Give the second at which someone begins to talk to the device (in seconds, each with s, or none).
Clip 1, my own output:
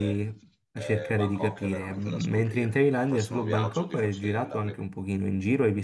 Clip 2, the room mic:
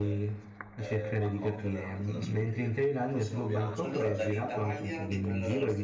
3.8 s